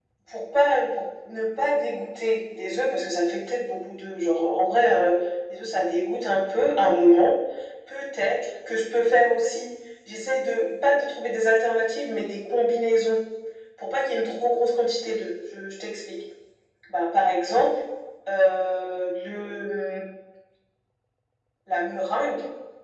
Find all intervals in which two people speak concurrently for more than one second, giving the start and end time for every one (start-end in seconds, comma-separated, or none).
none